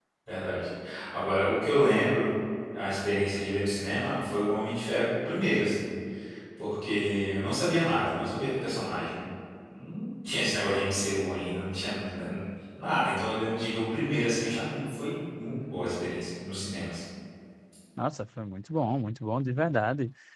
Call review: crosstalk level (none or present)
none